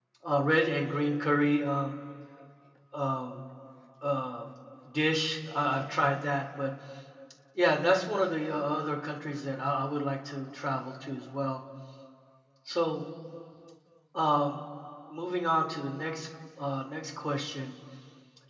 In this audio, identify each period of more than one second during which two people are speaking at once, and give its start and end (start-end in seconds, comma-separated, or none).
none